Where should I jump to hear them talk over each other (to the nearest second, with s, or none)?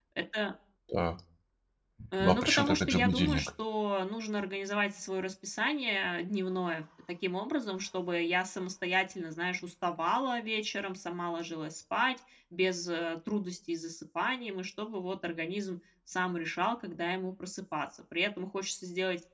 2 s